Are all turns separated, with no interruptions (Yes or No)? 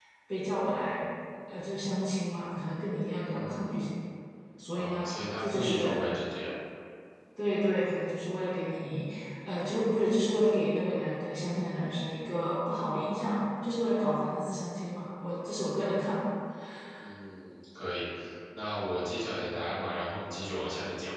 No